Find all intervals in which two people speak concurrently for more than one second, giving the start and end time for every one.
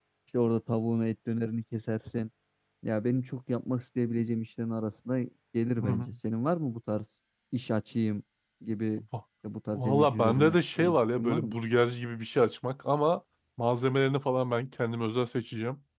9.7-11.6

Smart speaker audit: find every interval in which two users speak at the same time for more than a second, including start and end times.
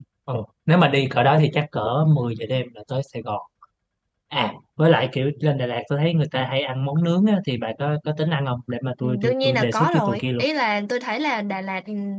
9.0-10.5

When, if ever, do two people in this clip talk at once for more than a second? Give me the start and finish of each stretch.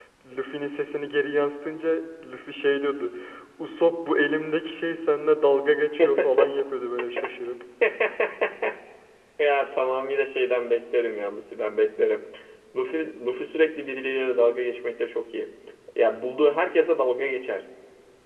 none

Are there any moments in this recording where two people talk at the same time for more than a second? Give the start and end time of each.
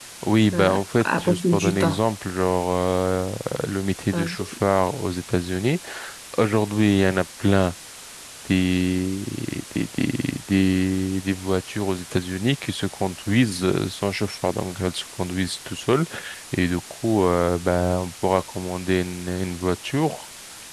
0.5-2.0

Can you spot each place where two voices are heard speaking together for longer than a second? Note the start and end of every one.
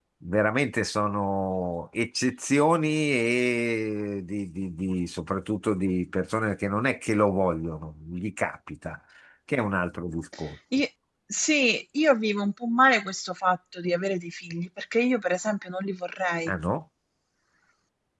none

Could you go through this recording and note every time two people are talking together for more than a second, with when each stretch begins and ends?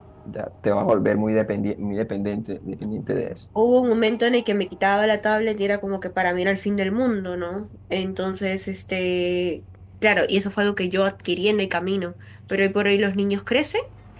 none

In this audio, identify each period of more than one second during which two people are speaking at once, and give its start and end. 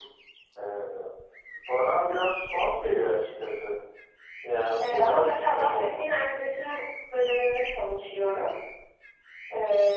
4.8-6.0

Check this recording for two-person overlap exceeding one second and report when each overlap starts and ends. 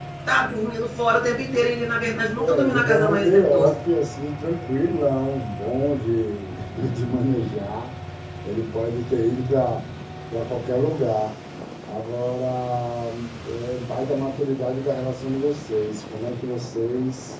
2.4-3.8

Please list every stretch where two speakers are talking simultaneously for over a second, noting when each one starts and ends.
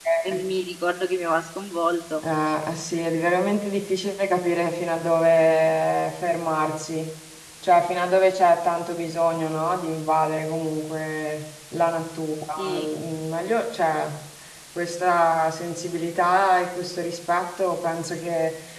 none

